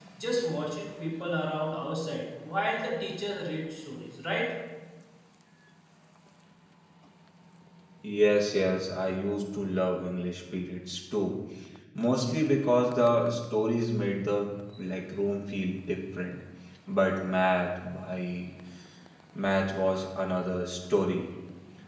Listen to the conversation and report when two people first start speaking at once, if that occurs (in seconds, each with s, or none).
none